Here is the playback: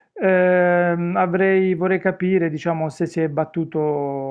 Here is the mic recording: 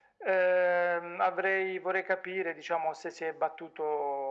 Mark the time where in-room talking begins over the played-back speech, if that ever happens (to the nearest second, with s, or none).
none